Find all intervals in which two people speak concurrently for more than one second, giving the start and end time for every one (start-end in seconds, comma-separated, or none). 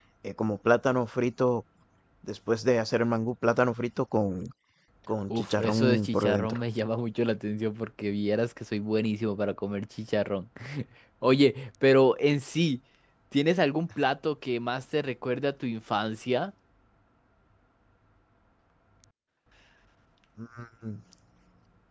5.3-6.6